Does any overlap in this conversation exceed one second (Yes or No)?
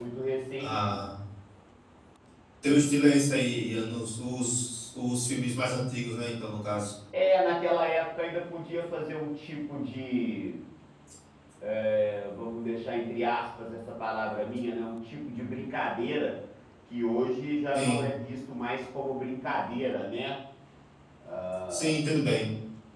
No